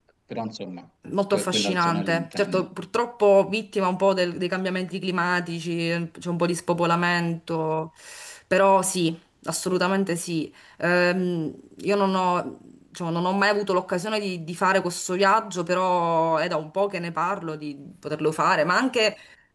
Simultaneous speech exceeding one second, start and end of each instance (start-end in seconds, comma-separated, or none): 1.3-2.7